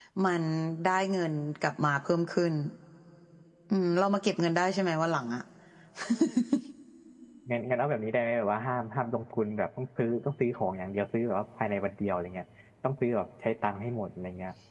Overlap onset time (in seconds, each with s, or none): none